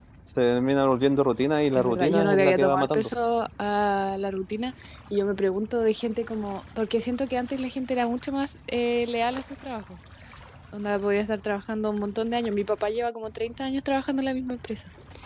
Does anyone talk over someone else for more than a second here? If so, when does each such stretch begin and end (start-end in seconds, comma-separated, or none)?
1.8-3.1